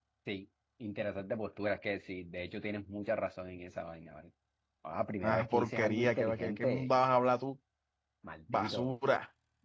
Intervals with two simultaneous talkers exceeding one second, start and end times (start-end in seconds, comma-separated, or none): 5.2-6.9